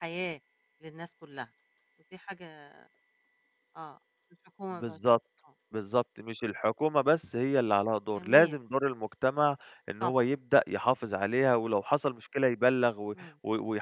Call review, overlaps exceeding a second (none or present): none